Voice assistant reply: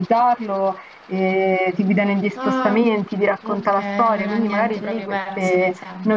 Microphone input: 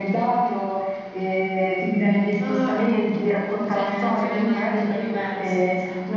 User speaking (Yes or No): Yes